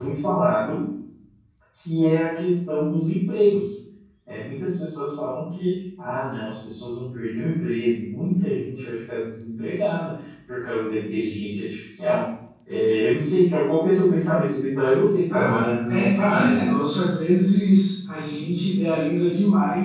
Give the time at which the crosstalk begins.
15.3 s

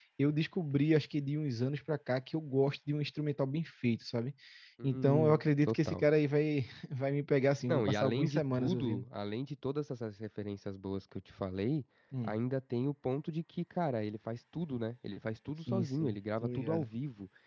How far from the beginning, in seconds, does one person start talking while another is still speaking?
4.8 s

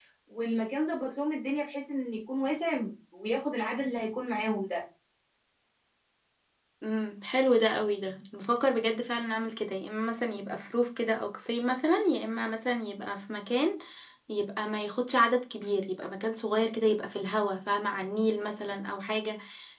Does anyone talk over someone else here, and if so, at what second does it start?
none

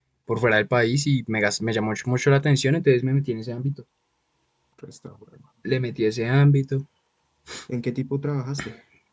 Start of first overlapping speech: none

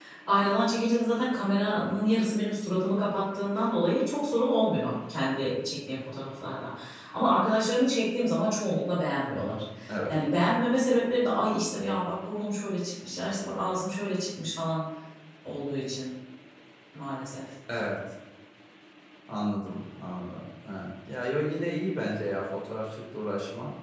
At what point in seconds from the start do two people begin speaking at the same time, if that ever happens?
none

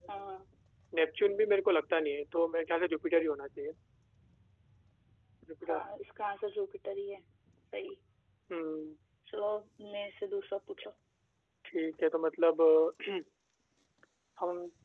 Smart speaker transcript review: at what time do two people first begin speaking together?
none

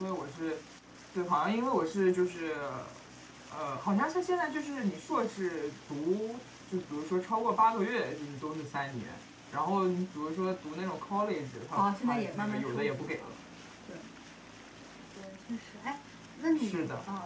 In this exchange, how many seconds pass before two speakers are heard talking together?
11.8 s

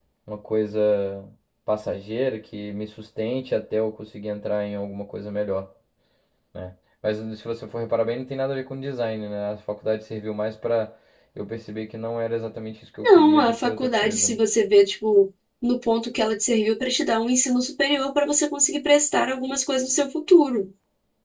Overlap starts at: 13.0 s

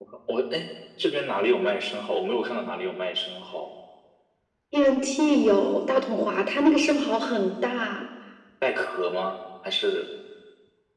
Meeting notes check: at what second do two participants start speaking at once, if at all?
none

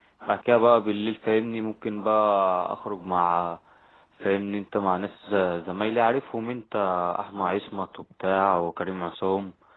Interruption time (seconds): none

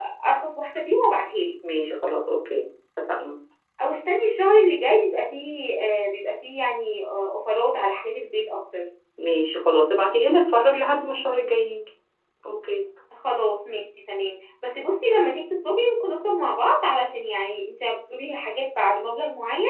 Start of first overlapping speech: none

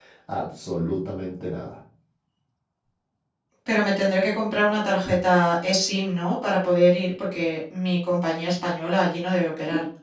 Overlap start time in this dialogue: none

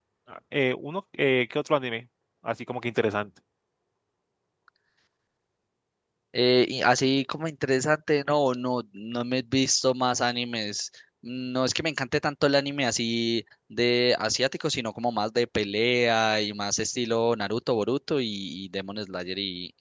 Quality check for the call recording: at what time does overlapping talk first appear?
none

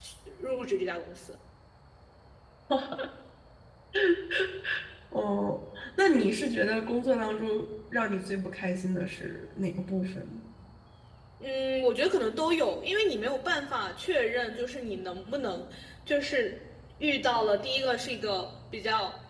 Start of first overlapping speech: none

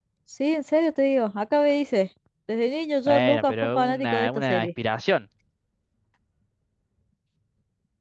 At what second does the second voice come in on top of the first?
3.1 s

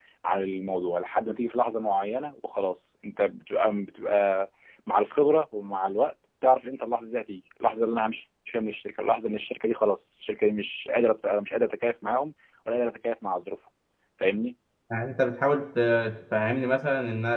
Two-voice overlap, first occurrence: none

